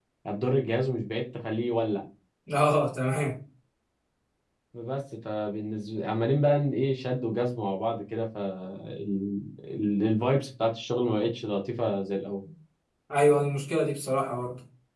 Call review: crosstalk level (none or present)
none